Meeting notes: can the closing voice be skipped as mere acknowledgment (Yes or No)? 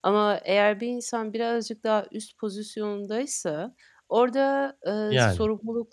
Yes